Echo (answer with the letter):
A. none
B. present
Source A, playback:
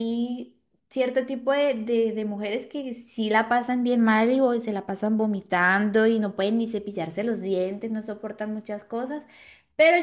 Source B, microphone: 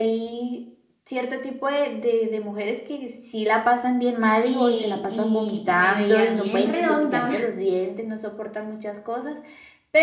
B